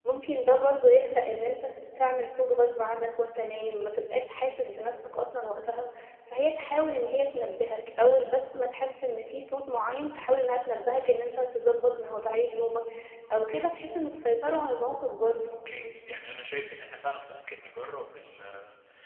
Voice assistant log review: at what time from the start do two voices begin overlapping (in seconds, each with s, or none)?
none